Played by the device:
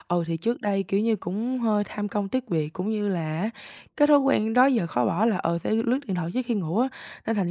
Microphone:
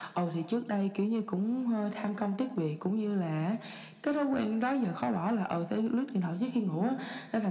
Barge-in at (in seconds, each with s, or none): none